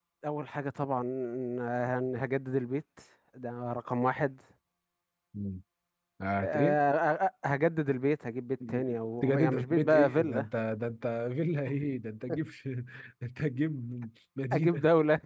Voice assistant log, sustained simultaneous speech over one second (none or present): present